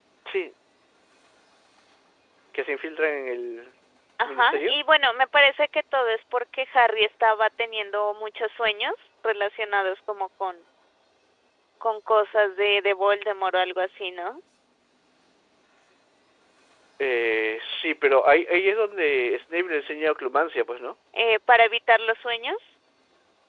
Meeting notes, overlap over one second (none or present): none